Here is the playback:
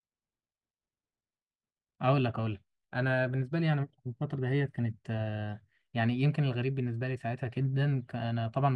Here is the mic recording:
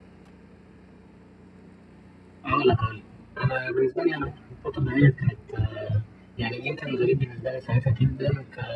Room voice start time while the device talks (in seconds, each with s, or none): none